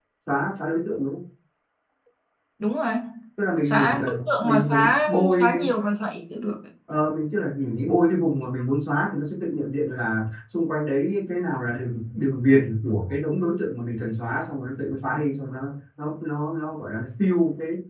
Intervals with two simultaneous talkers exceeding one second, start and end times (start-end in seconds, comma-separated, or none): 3.6-5.6